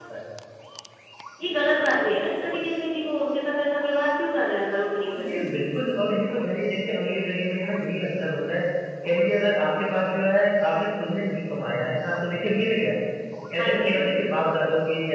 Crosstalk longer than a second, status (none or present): none